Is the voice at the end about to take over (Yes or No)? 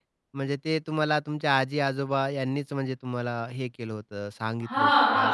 Yes